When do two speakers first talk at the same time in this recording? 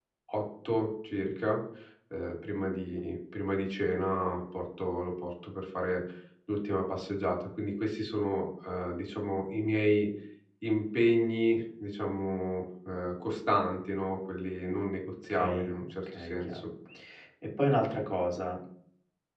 15 s

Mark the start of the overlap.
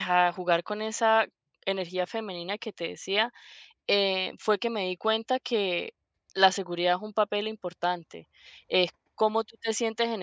none

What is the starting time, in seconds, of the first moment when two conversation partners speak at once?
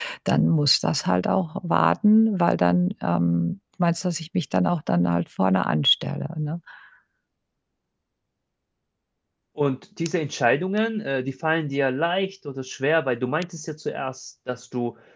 none

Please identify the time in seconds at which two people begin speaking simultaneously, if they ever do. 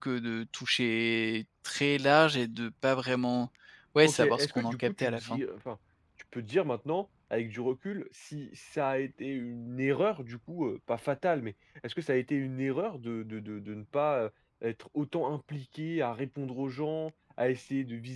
4 s

